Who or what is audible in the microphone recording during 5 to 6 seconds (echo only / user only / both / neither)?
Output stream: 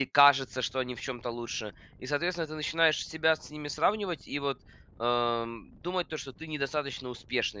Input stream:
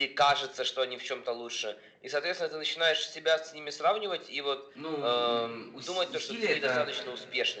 both